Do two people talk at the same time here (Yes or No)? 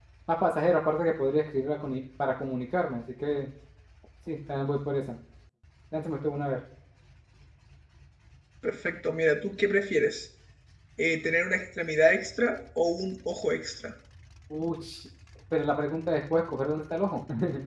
No